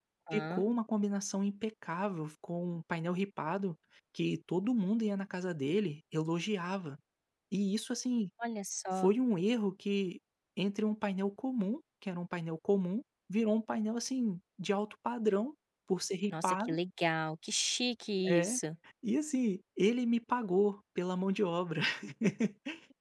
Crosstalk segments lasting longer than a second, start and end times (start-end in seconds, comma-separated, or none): none